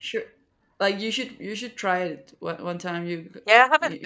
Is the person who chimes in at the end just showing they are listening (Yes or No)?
No